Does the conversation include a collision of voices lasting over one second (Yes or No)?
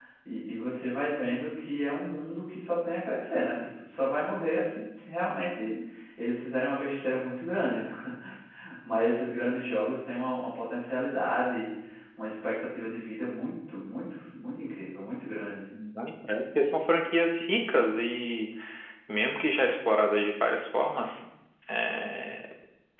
No